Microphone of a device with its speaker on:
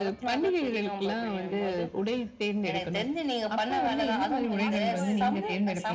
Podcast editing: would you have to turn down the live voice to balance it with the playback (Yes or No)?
No